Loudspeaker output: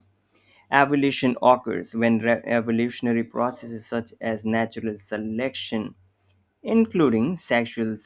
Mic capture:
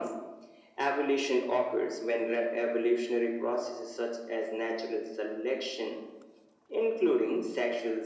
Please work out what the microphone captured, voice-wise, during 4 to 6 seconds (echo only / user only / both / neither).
echo only